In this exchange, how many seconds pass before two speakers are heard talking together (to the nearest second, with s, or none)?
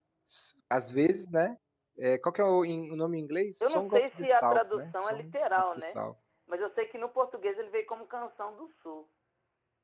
4 s